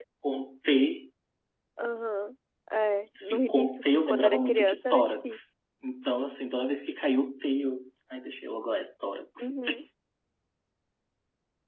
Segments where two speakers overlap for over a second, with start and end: 3.2-5.5

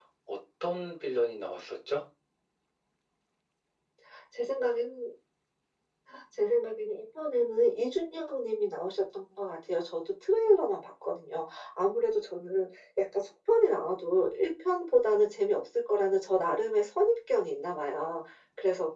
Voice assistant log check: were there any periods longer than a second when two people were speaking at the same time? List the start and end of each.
none

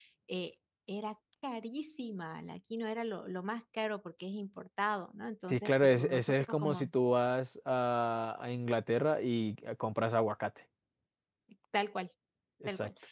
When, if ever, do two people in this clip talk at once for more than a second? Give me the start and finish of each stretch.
5.5-6.9

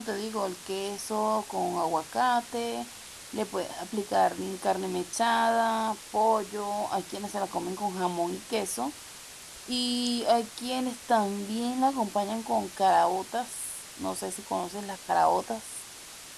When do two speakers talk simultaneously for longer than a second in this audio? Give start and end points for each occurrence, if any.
none

